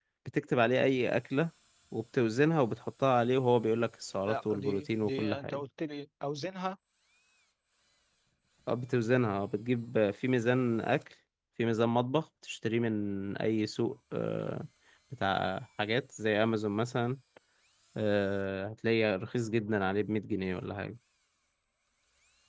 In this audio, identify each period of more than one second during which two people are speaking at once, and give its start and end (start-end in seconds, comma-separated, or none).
4.3-5.6